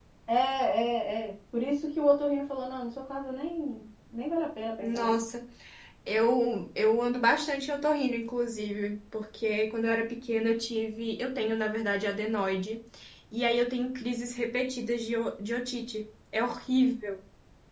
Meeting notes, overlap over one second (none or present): none